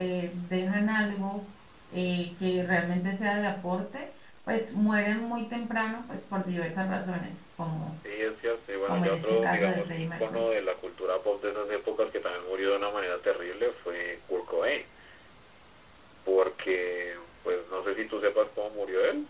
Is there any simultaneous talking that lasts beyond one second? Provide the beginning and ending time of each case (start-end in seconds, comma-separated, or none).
8.9-10.5